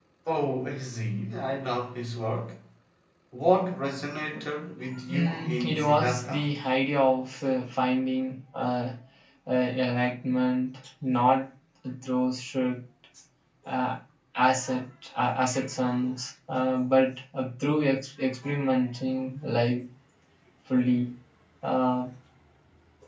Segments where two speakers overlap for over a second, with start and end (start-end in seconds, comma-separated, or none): 5.1-6.5